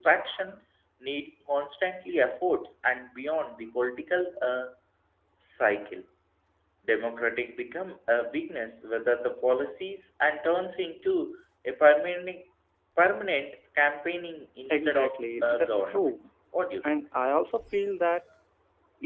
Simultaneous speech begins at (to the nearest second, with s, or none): 15 s